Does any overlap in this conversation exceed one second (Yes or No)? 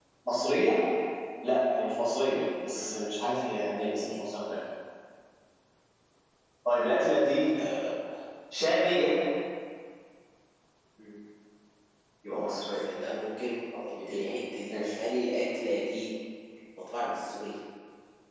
No